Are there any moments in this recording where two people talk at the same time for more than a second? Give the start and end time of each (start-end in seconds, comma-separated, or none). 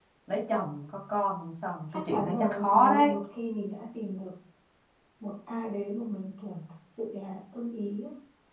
1.9-3.1